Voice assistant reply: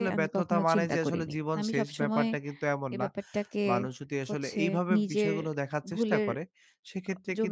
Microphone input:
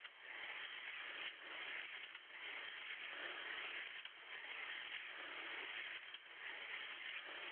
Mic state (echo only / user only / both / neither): neither